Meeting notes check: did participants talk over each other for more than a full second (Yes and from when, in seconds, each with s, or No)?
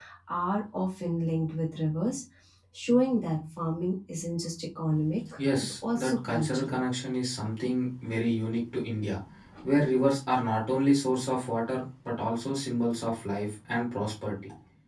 Yes, from 5.4 s